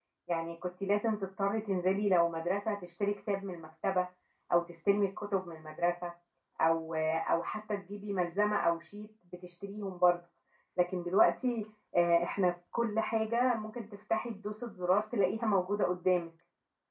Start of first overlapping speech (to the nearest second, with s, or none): none